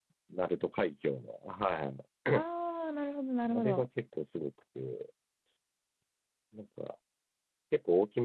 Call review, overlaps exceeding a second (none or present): none